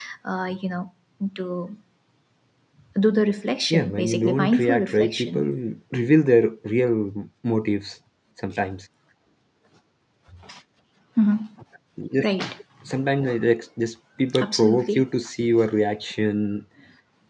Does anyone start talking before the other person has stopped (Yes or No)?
Yes